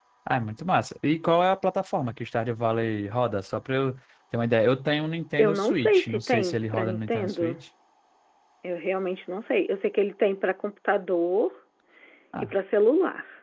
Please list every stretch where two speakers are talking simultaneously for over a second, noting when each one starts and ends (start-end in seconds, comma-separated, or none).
5.4-7.6